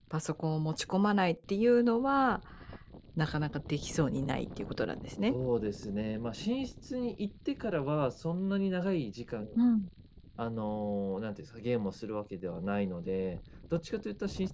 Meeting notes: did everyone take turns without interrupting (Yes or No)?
Yes